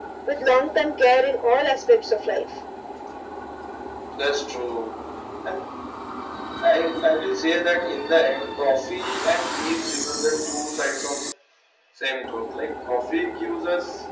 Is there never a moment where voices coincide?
Yes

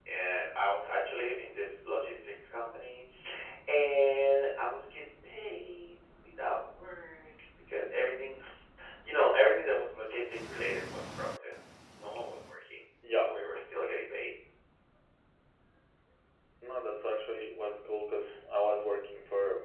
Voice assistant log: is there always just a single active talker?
Yes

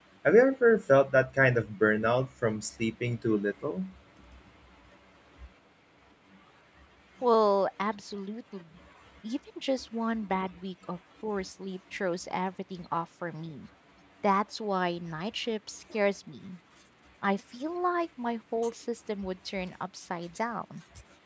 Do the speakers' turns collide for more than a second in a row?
No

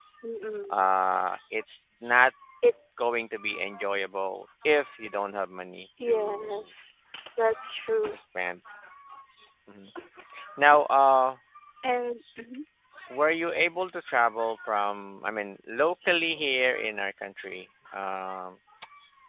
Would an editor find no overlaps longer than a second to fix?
Yes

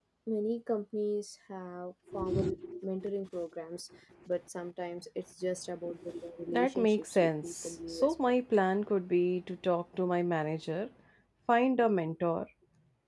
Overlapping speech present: Yes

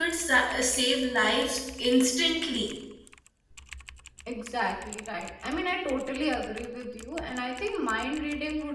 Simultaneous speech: No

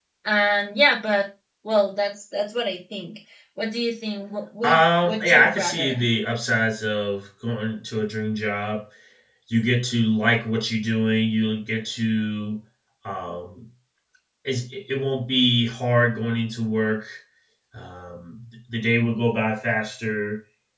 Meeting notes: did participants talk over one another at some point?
Yes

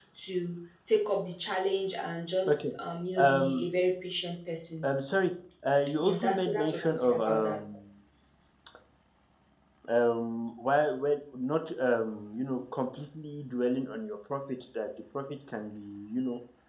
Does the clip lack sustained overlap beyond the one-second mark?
No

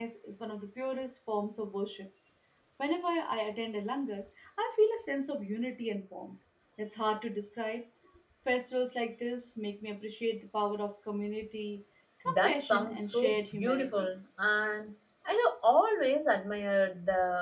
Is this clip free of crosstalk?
No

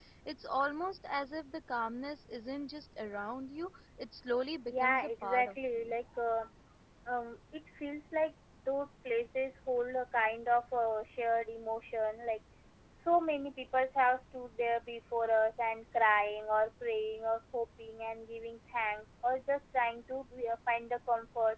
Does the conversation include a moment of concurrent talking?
Yes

